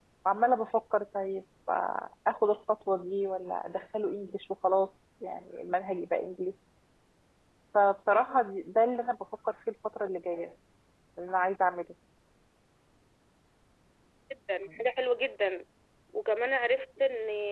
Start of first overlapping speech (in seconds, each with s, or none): none